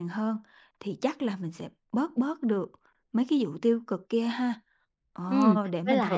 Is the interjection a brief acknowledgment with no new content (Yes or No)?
No